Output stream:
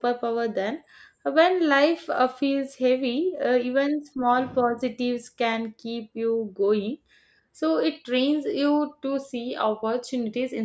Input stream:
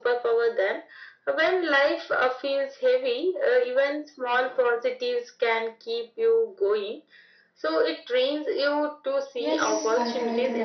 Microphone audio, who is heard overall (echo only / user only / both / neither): both